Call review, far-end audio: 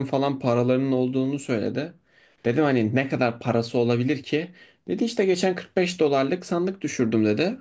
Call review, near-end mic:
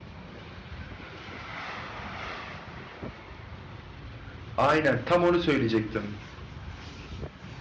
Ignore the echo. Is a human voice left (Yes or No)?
Yes